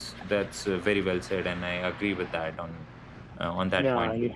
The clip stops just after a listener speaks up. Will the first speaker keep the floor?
No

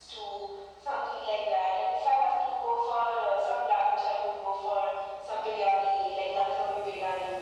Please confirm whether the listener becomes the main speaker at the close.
No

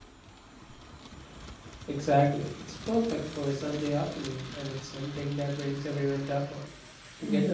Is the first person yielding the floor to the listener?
Yes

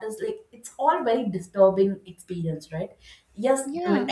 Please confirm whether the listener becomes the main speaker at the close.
No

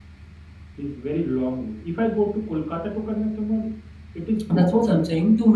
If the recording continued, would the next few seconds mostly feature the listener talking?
Yes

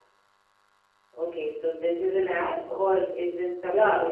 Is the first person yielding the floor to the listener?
Yes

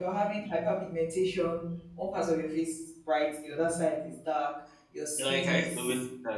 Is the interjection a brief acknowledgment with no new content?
No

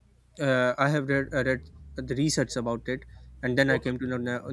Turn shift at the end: No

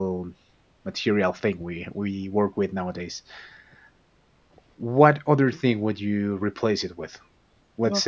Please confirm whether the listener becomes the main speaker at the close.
No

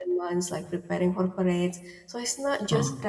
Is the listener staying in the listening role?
Yes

